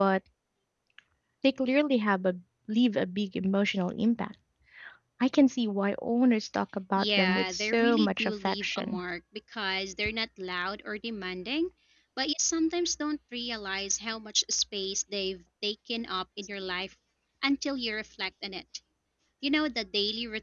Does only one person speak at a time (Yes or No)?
No